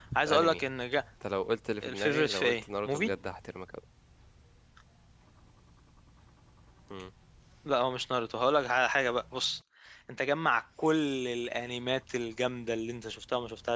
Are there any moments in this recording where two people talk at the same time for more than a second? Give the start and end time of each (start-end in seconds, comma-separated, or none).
1.8-3.1